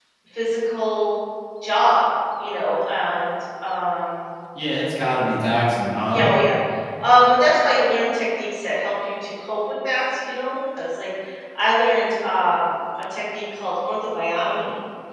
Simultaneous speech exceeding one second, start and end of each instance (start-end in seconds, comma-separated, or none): none